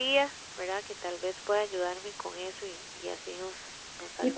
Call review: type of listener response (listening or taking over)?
taking over